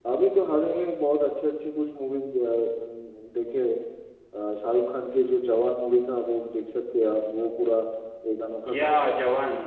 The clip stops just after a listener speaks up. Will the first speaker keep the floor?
No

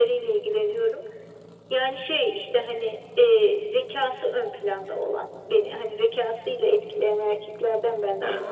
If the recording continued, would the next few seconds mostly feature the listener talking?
Yes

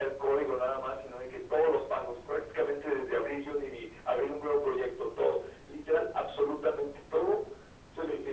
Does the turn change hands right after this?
No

